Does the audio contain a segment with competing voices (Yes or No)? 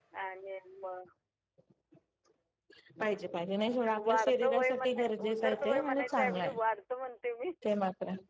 Yes